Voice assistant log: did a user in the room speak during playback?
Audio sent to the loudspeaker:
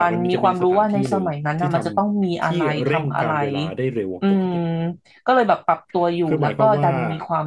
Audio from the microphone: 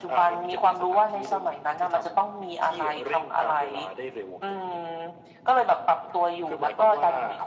No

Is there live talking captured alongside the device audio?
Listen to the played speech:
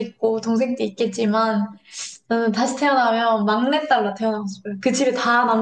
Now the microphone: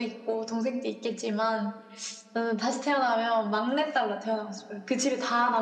No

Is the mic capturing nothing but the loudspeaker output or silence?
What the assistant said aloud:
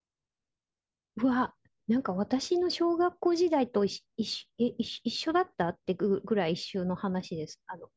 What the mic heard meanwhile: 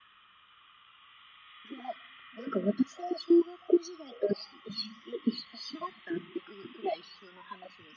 Yes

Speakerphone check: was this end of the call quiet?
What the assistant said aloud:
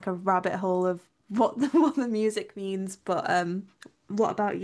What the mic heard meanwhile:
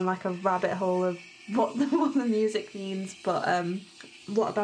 Yes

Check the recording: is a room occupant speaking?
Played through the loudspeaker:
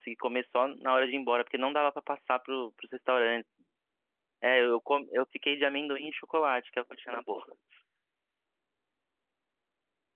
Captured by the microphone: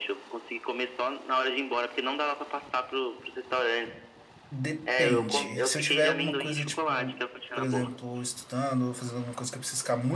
Yes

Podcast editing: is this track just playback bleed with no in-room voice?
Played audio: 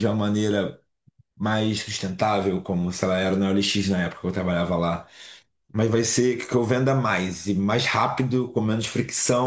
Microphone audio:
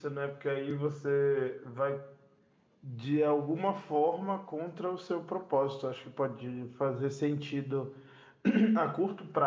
No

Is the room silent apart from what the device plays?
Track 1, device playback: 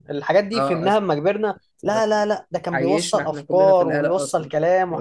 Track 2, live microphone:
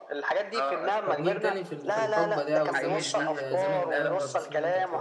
No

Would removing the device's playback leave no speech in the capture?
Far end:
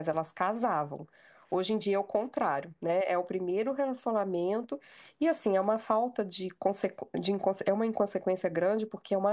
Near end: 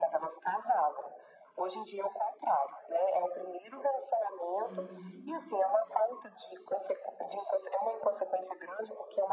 No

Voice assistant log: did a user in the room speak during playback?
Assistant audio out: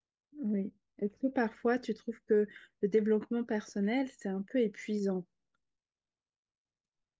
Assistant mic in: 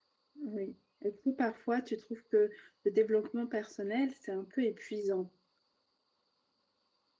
No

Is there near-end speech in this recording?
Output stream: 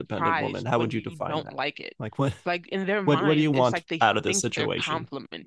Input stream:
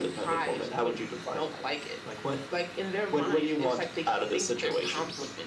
No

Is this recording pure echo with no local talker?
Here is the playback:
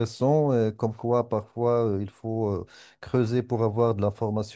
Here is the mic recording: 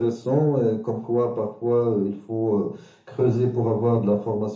Yes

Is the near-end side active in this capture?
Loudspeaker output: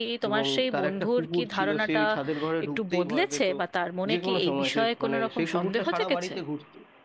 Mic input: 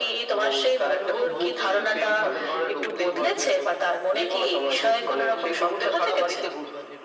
Yes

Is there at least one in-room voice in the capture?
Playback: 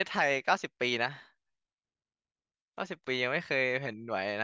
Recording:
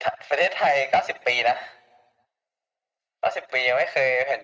No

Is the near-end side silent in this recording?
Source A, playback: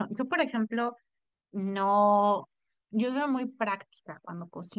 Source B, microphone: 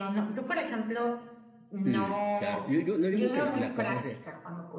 No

